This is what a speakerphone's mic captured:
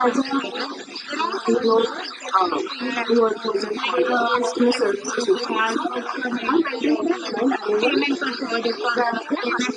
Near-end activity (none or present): present